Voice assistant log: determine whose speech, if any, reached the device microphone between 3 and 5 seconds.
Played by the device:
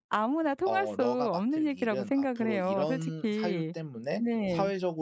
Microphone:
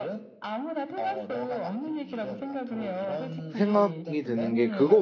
both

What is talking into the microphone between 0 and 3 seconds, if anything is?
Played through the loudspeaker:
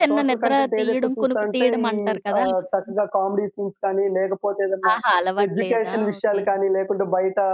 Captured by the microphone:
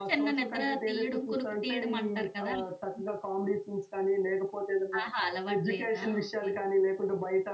echo only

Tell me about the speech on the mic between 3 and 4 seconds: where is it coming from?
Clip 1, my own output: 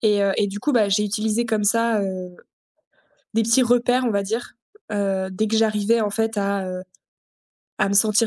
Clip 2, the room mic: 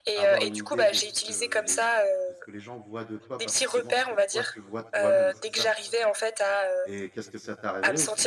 both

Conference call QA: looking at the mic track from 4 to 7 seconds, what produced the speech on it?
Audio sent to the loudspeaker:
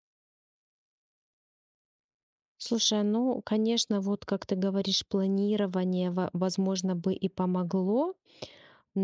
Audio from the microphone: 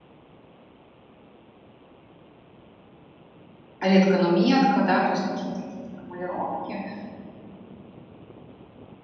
user only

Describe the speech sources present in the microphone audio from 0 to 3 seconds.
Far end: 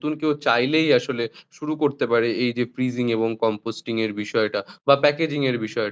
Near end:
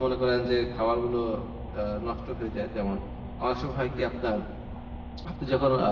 user only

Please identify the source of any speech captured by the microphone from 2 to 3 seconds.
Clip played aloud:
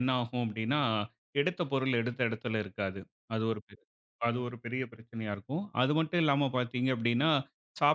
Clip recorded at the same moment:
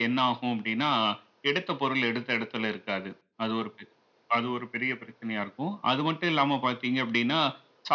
echo only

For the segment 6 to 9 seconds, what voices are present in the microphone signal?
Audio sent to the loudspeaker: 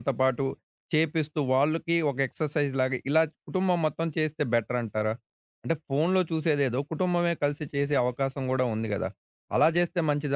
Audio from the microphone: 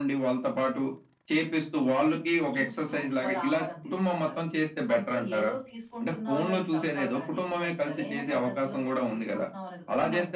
both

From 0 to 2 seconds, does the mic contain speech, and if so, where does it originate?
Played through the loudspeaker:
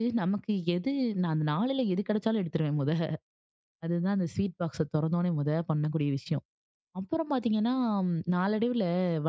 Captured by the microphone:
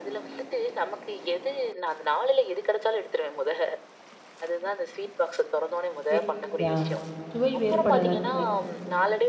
echo only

